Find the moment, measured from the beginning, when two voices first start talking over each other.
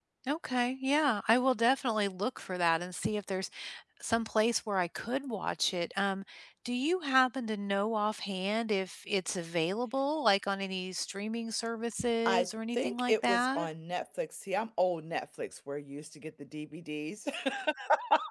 12.2 s

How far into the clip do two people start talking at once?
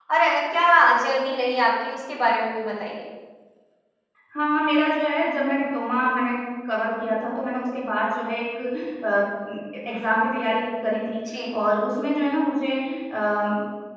none

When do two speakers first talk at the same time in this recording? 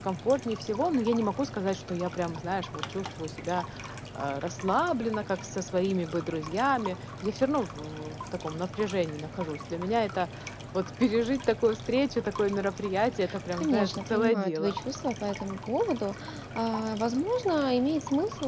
13.5 s

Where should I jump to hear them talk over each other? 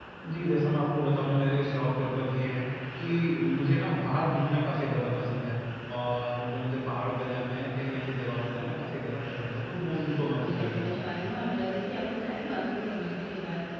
9.7 s

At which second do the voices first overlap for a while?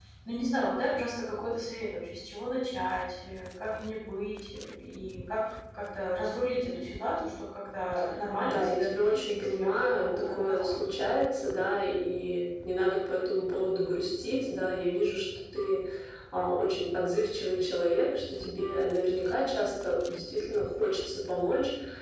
8.5 s

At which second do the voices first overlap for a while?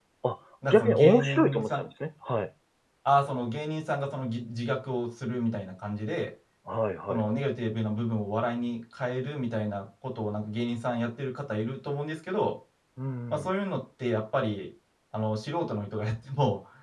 0.6 s

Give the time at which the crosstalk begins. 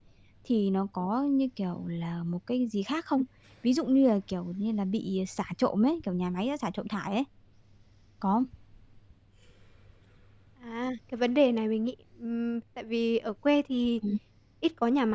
none

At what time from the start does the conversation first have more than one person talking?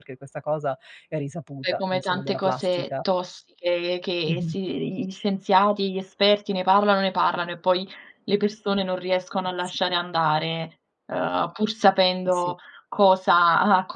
1.6 s

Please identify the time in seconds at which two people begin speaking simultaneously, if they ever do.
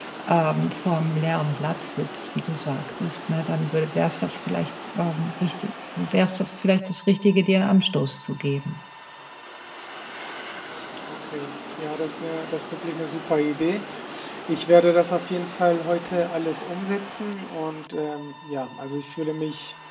none

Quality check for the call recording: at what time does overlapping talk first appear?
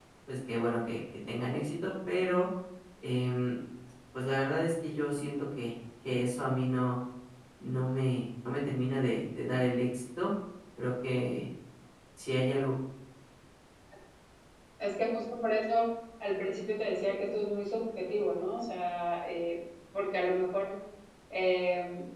none

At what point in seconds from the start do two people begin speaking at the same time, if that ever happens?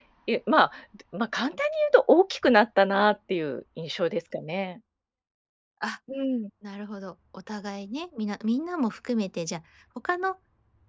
none

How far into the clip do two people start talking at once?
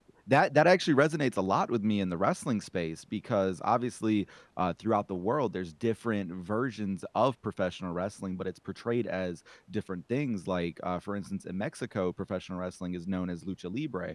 none

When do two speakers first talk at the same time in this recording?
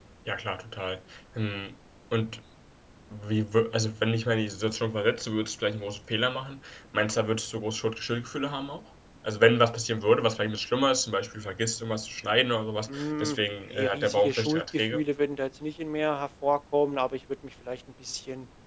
12.9 s

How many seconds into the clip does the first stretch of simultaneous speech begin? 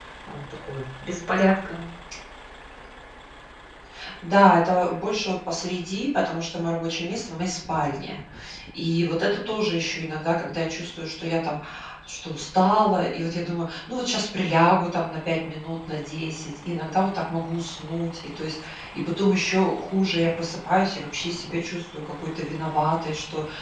none

